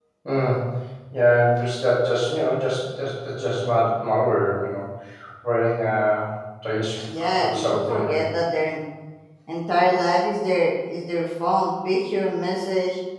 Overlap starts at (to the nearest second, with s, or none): 7 s